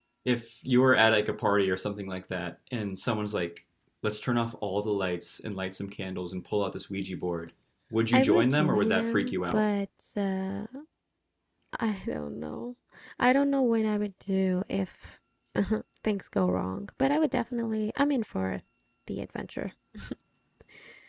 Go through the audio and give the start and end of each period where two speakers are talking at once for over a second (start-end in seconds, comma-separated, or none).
8.1-9.6